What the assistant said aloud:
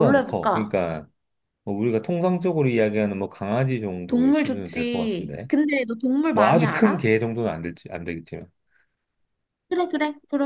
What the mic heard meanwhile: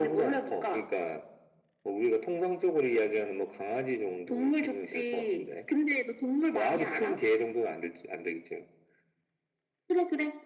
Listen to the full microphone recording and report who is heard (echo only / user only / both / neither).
echo only